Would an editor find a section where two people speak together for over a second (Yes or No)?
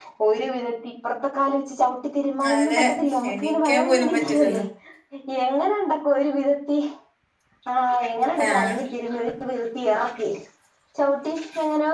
Yes